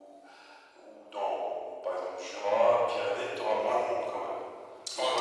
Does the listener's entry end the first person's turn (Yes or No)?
Yes